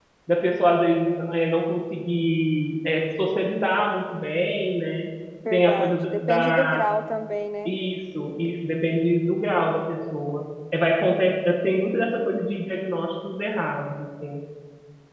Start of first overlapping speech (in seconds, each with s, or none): 5.5 s